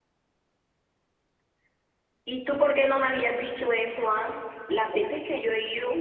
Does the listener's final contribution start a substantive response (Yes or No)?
No